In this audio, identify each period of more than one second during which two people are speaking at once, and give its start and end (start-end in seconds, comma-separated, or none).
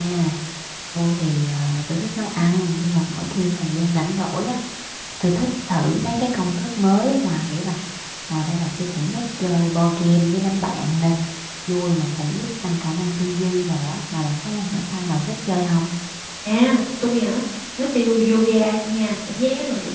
none